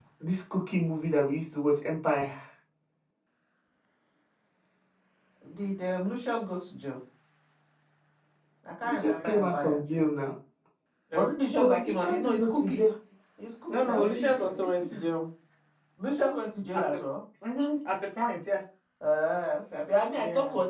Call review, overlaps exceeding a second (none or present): present